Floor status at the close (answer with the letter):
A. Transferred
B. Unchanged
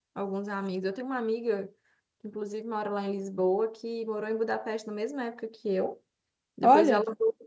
B